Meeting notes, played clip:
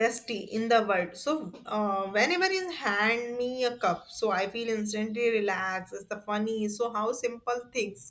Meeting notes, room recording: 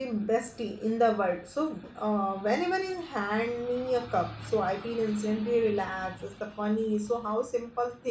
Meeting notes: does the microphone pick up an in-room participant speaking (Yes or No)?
No